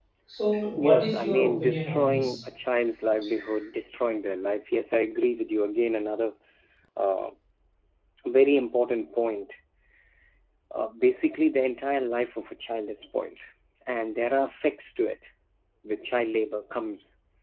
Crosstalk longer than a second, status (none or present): present